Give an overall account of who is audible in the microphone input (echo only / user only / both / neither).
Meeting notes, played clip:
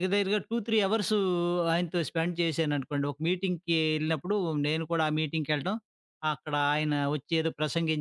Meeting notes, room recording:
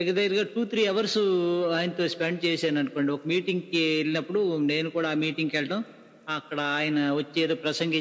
echo only